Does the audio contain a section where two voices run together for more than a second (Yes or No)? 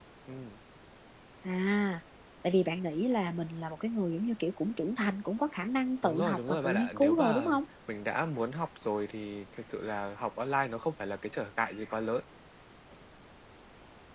Yes